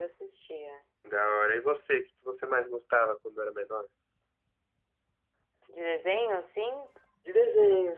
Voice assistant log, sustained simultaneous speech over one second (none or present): none